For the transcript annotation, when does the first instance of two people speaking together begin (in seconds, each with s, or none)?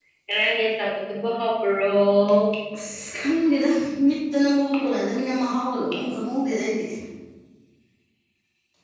none